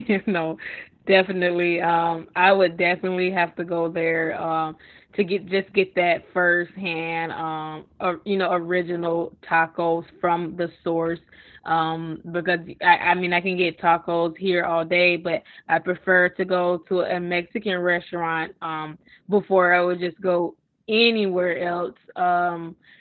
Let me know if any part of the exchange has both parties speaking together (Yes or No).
No